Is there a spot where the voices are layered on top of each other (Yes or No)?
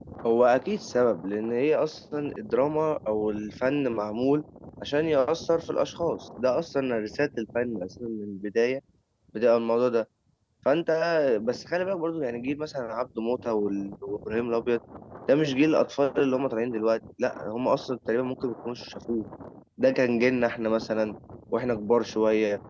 No